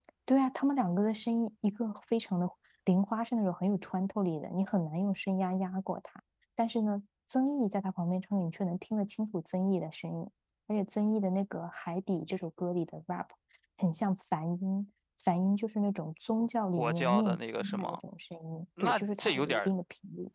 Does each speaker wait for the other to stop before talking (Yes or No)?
No